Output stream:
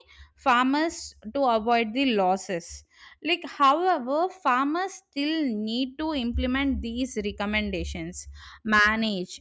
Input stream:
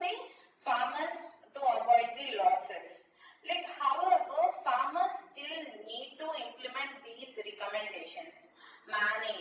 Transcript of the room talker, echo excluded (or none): none